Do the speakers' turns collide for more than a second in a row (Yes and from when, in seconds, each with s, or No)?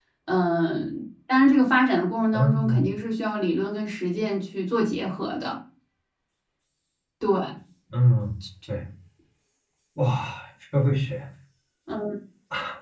No